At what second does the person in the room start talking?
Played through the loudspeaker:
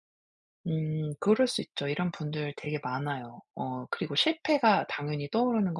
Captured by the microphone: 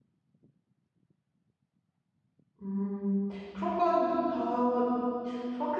2.6 s

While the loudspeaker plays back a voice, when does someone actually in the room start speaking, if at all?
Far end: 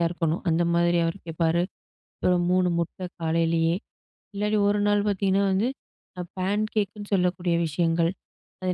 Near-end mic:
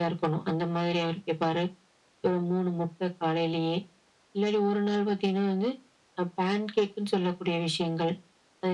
none

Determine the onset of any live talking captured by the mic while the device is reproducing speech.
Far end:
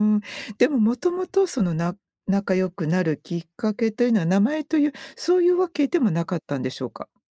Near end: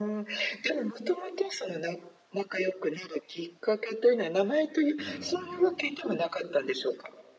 5.0 s

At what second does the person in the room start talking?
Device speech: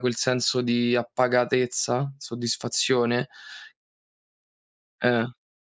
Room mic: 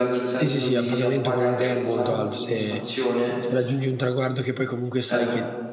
0.3 s

